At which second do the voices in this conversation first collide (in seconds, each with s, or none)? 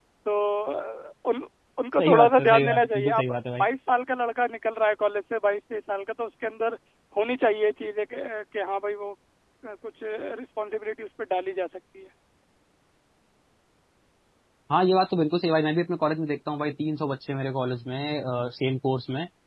1.9 s